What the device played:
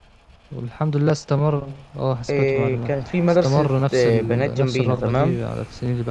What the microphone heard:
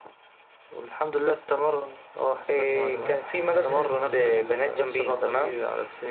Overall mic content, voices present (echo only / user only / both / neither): both